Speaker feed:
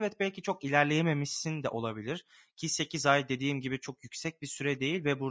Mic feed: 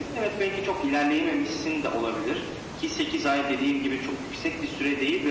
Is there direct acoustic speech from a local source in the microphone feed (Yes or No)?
No